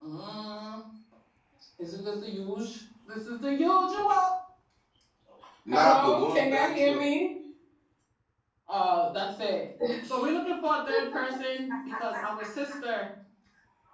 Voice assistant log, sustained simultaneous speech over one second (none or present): present